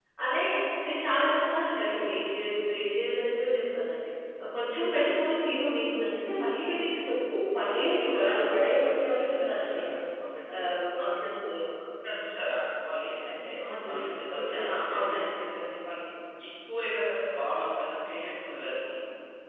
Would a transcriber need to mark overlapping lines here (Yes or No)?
Yes